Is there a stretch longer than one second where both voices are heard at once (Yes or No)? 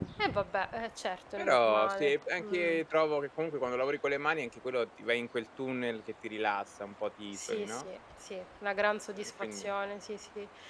Yes